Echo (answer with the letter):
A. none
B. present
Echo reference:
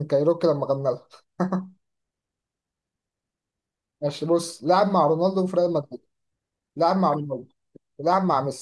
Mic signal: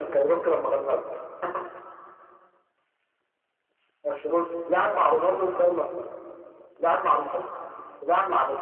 B